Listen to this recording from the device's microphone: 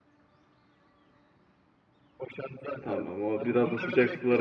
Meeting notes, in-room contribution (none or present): present